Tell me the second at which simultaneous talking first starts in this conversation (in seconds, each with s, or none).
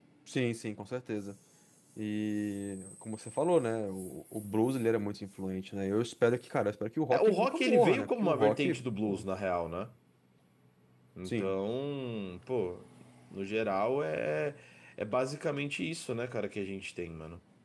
7.1 s